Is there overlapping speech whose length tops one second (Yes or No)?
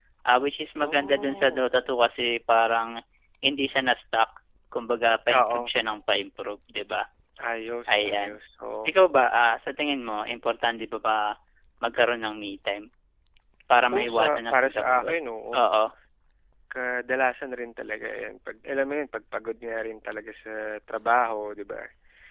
Yes